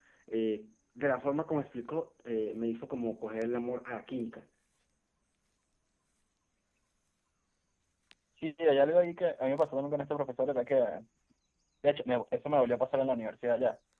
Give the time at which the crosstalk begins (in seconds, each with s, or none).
none